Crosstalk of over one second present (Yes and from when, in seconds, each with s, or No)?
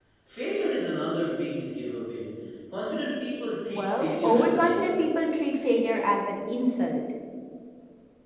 Yes, from 3.7 s